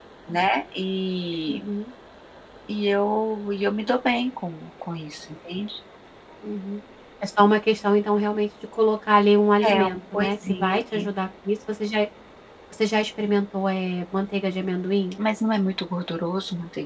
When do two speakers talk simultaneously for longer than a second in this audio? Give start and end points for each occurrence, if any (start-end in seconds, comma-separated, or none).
9.7-11.1